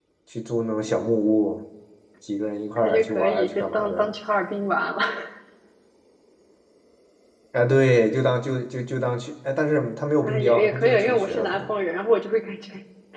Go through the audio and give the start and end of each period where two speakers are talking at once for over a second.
2.8-4.1, 10.2-11.6

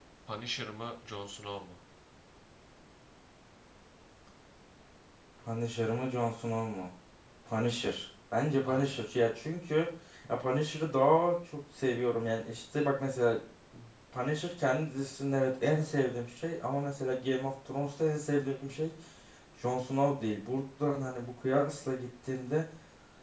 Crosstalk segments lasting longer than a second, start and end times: none

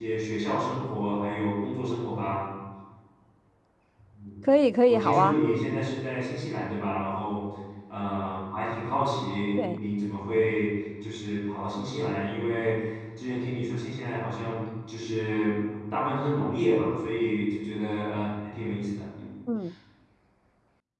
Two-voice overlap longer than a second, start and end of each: none

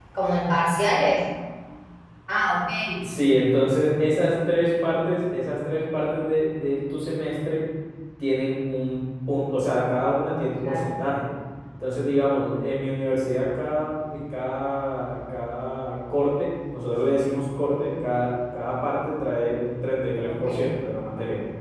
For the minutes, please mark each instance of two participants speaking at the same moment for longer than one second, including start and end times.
none

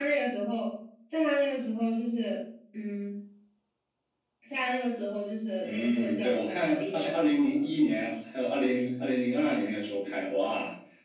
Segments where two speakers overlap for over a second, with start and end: 5.6-7.7

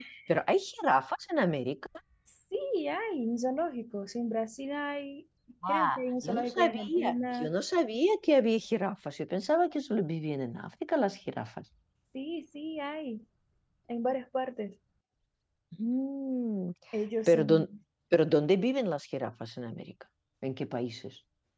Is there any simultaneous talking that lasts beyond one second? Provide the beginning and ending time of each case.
5.7-7.6

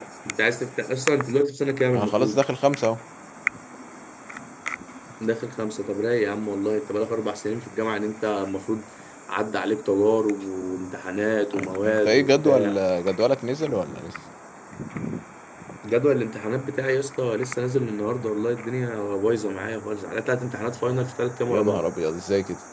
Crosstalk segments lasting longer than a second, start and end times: 11.5-12.8

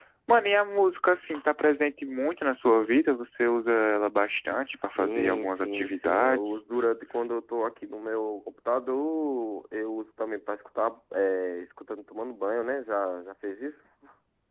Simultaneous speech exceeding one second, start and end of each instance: 5.0-6.6

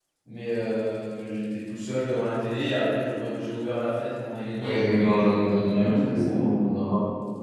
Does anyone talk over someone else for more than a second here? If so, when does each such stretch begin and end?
4.6-6.5

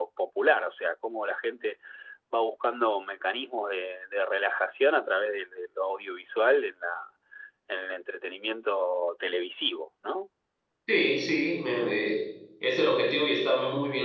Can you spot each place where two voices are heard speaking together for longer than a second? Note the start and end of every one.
none

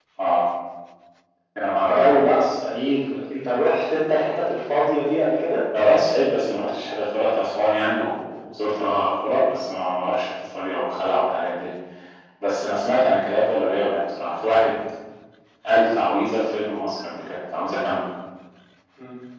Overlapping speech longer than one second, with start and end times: none

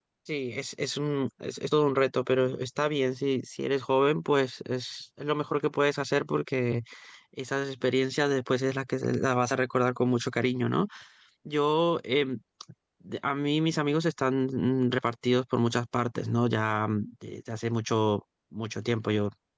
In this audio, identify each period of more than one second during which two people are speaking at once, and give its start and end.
none

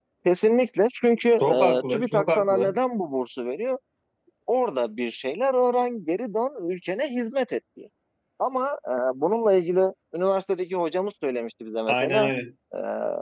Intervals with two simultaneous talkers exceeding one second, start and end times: 1.4-2.8

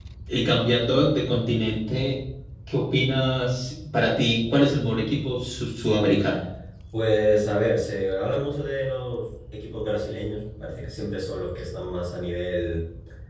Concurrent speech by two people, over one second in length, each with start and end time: none

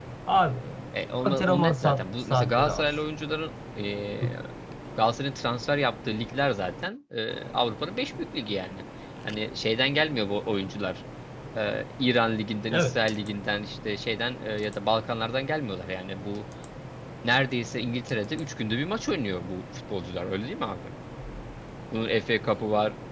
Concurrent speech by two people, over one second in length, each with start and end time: 1.2-2.9

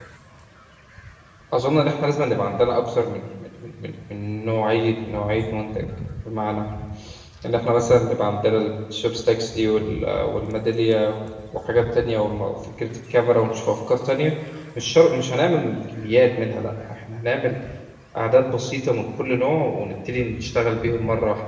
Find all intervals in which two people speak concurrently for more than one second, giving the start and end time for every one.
none

